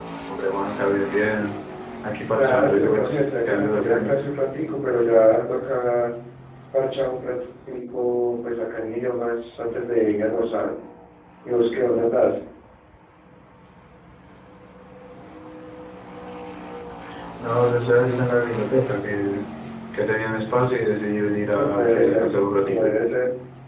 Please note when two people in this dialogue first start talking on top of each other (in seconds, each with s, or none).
2.4 s